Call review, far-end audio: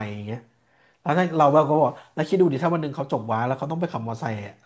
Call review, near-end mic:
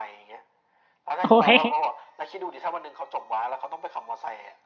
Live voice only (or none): โอ้ย